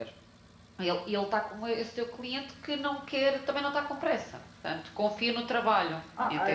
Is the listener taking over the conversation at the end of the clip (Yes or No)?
Yes